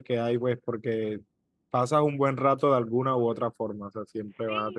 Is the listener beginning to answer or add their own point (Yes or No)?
Yes